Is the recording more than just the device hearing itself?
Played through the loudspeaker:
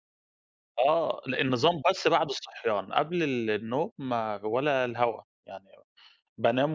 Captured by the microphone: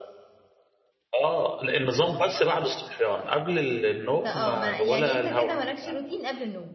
Yes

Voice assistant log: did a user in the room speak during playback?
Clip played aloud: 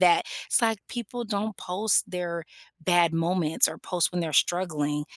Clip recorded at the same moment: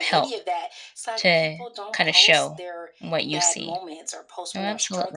Yes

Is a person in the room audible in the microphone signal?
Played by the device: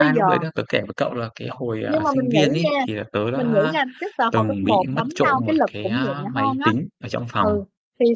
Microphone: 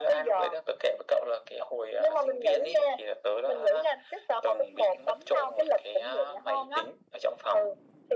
No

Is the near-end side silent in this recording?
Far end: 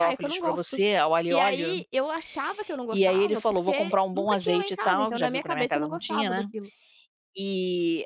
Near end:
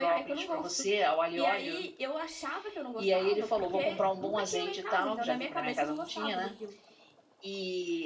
Yes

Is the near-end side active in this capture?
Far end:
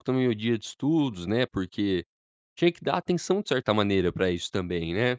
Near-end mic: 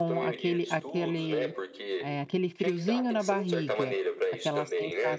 Yes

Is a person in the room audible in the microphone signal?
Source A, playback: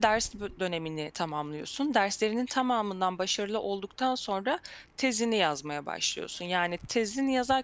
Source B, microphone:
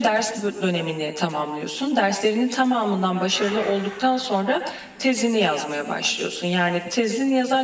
No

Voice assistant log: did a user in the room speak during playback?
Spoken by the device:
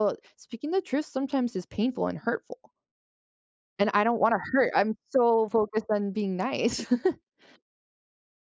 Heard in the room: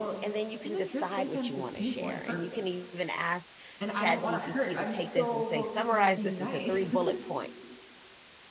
Yes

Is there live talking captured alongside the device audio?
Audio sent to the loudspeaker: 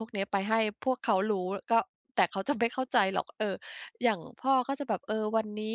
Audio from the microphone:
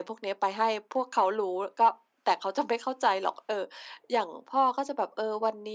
No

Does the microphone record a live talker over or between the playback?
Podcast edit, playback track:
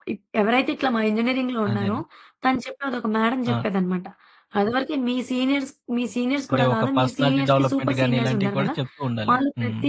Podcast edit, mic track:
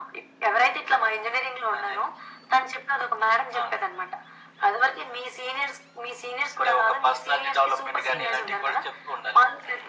Yes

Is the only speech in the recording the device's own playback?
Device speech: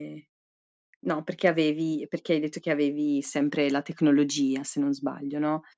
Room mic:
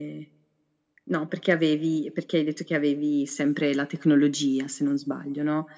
Yes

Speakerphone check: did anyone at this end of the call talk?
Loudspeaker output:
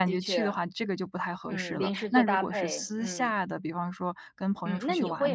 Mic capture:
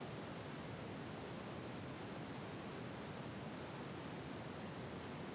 No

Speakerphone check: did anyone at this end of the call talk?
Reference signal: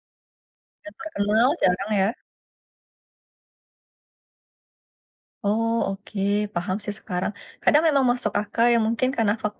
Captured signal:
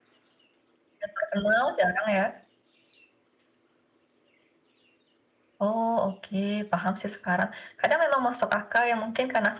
No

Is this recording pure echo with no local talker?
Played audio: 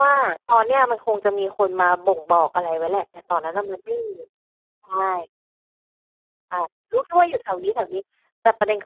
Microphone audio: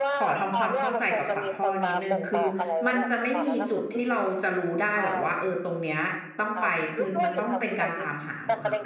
No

